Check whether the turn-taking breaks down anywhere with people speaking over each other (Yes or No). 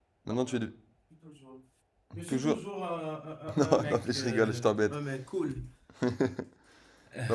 Yes